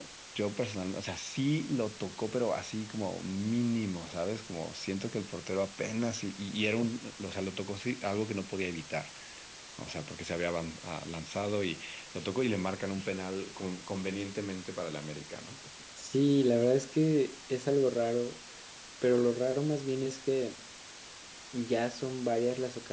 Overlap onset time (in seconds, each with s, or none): none